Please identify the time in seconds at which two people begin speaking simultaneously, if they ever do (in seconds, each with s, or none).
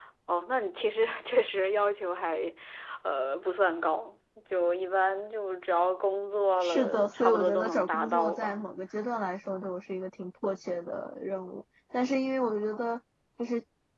6.6 s